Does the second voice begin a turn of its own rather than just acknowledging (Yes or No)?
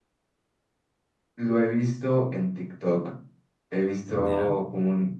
No